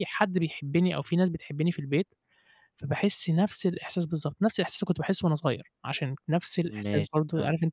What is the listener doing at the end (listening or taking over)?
listening